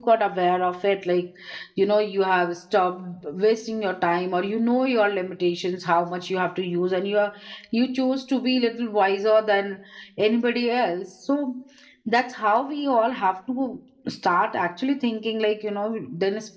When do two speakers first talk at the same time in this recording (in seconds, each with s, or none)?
none